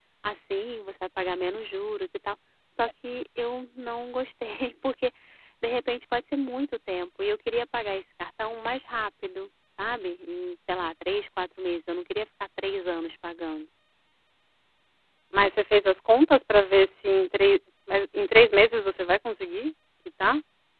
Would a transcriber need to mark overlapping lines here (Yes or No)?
No